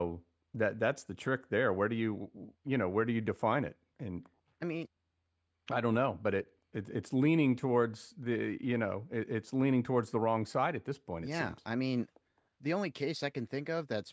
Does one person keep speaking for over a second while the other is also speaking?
No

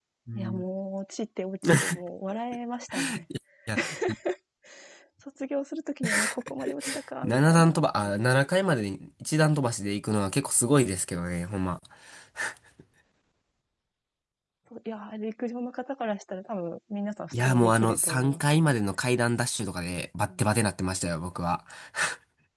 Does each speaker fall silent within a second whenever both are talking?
No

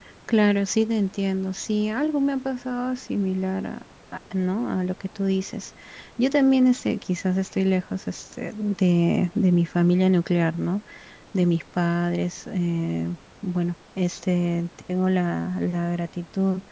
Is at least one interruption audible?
No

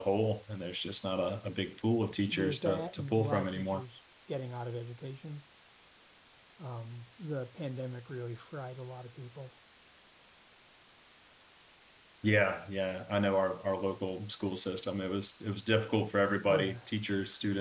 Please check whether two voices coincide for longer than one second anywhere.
Yes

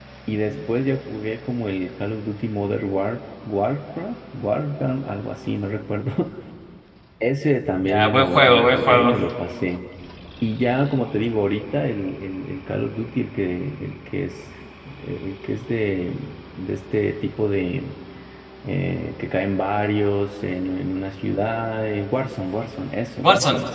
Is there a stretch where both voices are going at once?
Yes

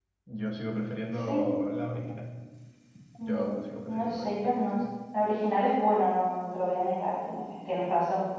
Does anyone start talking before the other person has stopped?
Yes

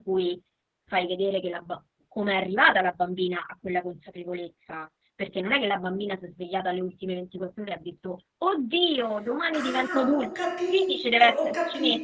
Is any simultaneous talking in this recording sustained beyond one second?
Yes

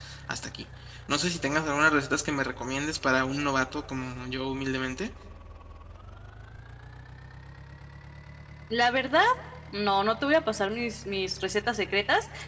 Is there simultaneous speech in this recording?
No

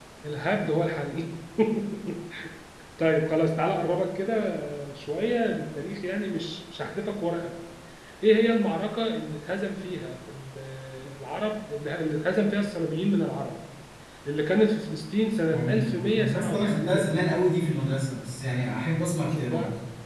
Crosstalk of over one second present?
Yes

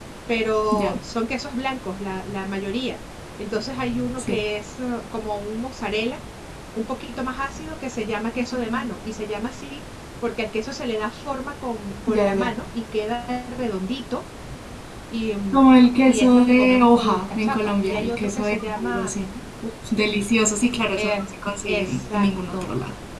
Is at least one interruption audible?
Yes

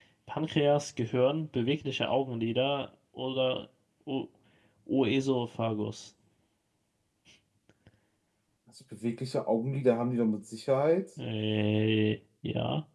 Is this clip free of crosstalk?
Yes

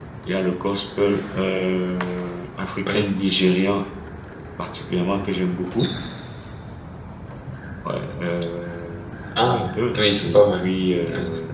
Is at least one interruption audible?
Yes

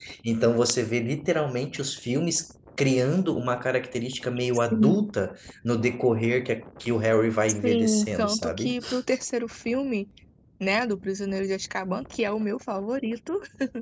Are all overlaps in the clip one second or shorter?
No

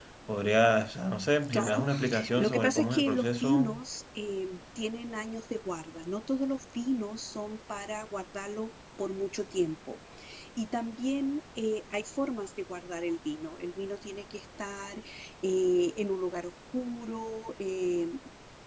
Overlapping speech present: Yes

